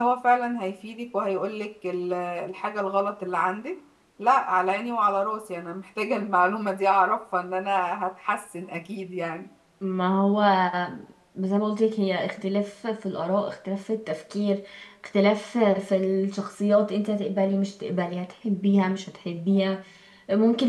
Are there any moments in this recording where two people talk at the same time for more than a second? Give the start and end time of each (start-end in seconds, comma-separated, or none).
none